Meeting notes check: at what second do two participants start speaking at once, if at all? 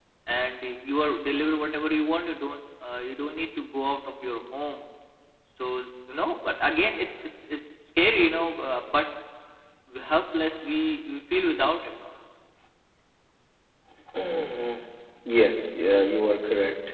none

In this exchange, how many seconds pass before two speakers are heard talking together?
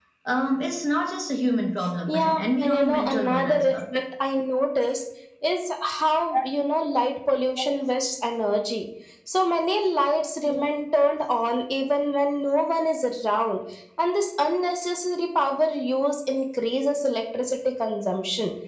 2 s

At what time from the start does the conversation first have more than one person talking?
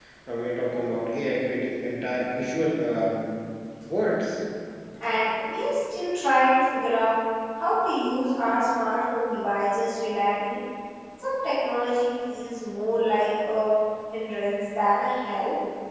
none

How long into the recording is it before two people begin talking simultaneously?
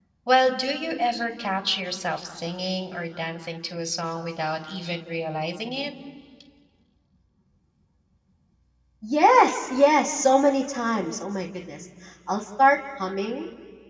none

